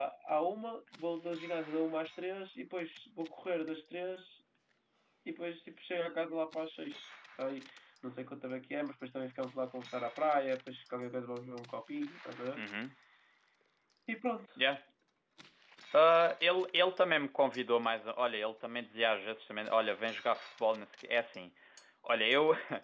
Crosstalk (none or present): none